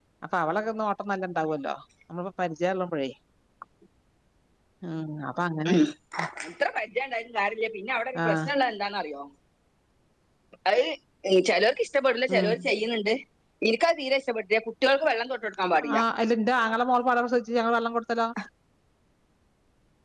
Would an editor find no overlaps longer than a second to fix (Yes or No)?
Yes